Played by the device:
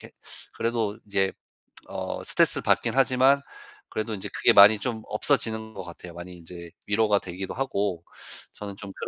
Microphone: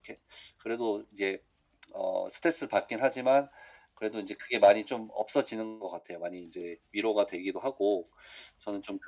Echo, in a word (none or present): present